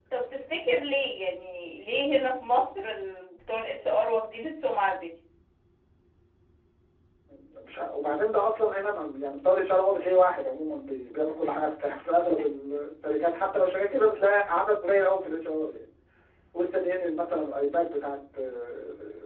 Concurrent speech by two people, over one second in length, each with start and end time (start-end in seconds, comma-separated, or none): none